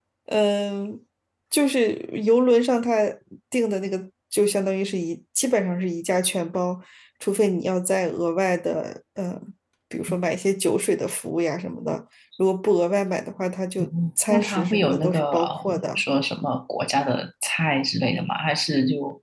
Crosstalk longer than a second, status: present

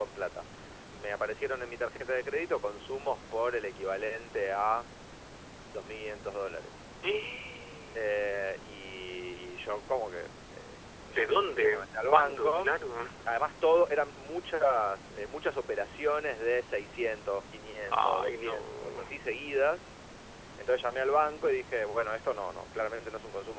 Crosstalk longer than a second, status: present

